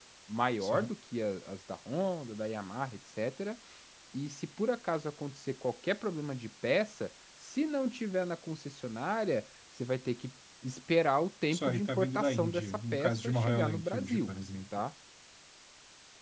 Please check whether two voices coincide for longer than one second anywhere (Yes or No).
Yes